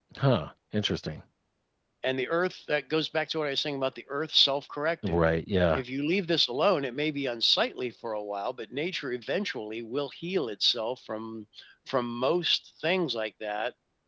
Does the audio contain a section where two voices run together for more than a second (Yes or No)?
No